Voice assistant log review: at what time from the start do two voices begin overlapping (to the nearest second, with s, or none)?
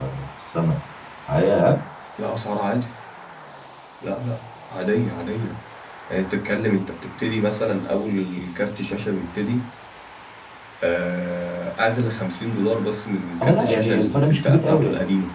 13 s